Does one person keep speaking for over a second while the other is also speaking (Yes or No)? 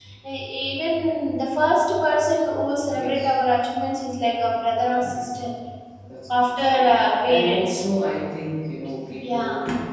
Yes